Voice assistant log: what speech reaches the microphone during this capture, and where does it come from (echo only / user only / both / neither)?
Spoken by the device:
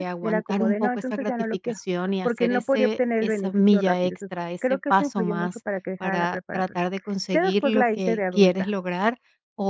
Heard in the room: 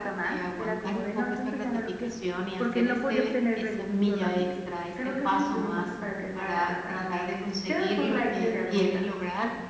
echo only